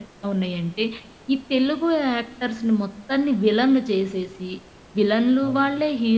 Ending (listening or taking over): listening